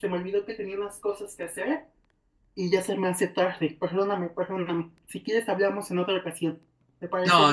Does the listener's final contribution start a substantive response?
Yes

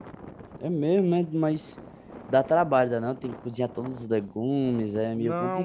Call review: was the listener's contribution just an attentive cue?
No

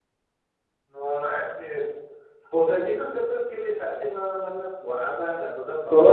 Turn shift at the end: Yes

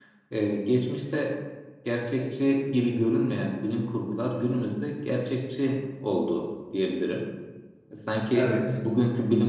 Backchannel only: Yes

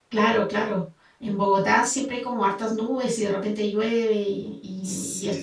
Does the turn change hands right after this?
Yes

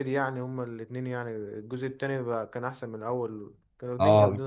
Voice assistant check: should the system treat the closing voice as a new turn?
Yes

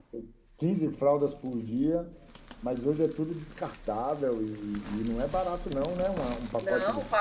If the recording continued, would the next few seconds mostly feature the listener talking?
Yes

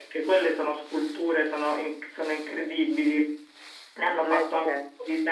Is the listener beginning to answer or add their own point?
No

